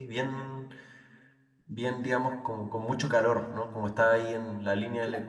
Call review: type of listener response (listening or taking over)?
taking over